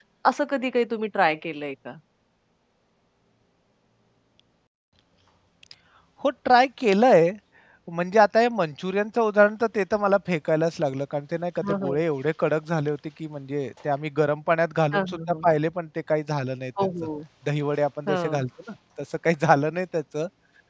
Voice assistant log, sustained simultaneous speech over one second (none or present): none